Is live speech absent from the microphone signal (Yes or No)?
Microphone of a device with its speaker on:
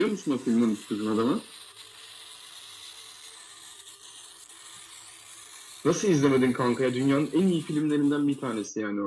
Yes